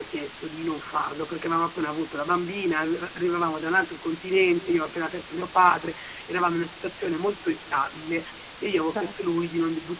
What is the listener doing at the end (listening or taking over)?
listening